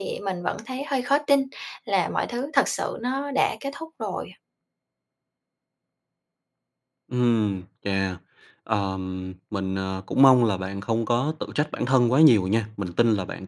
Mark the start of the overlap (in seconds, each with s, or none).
none